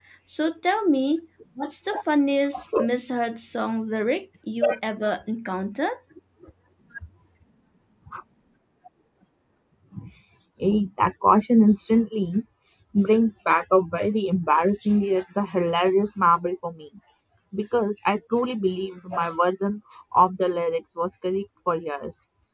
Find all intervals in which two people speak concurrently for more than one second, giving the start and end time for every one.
none

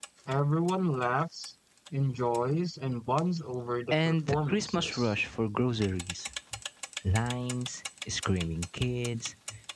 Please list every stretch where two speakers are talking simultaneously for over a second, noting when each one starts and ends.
3.9-5.1

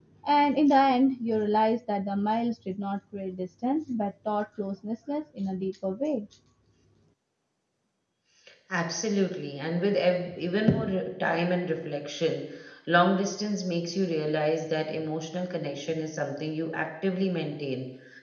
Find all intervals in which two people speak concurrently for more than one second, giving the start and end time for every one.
none

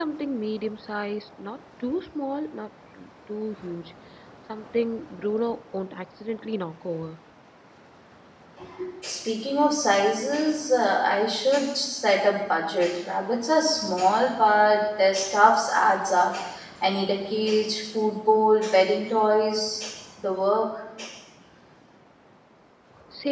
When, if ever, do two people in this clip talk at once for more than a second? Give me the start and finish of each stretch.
none

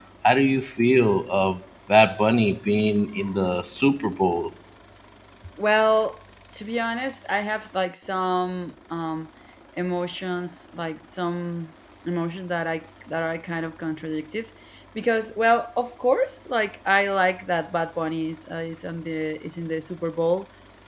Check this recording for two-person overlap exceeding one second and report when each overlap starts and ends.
none

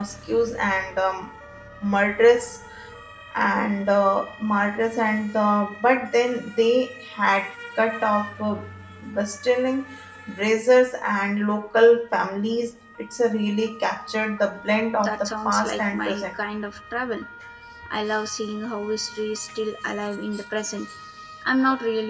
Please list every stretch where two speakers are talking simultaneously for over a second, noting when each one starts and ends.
15.0-16.2

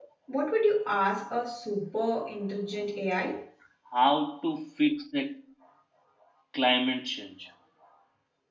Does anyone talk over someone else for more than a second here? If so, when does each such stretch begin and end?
none

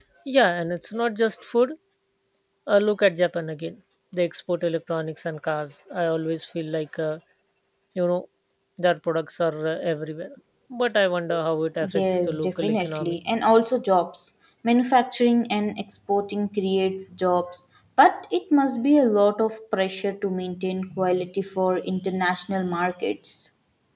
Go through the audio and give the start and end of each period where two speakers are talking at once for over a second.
11.9-13.2

